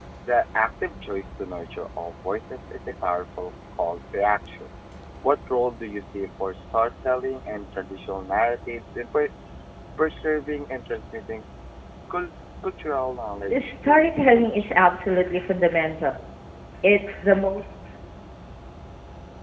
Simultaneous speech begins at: 13.5 s

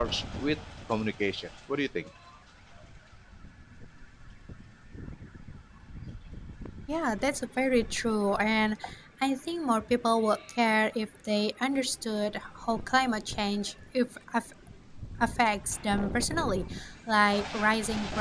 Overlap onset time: none

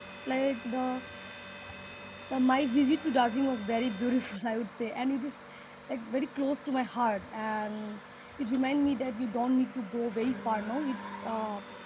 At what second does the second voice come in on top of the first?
none

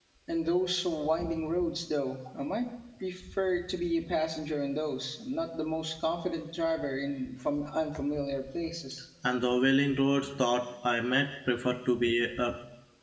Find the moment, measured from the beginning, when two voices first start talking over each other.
none

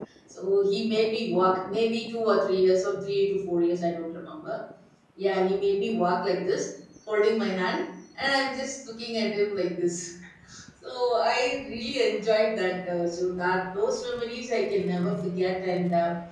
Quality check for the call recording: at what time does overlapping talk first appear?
none

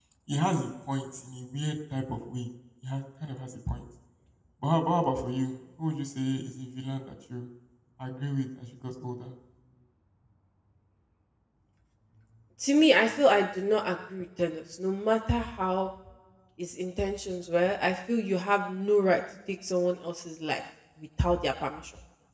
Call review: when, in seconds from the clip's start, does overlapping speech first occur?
none

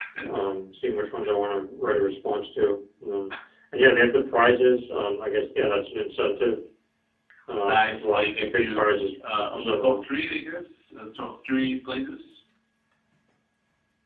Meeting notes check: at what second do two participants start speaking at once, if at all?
7.7 s

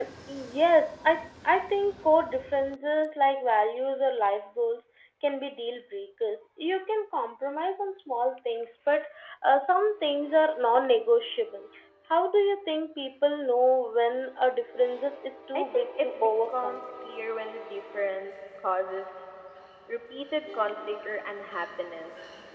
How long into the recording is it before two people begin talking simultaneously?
15.5 s

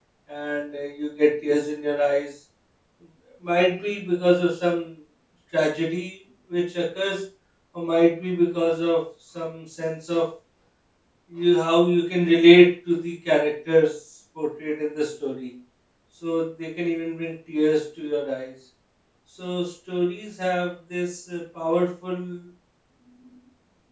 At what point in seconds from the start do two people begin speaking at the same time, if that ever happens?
none

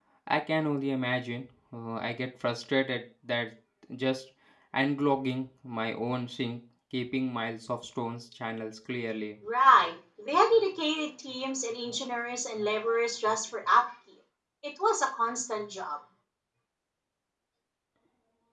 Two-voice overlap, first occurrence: none

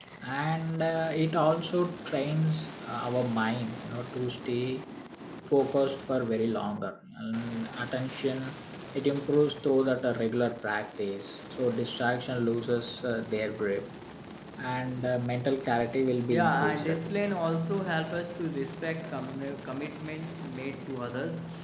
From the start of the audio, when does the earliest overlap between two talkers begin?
16.3 s

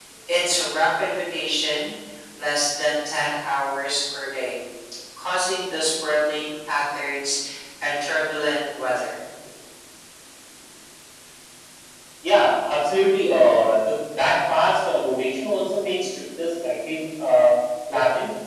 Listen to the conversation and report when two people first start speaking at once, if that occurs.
none

